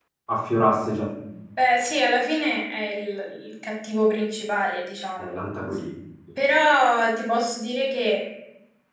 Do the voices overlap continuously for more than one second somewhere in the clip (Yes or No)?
No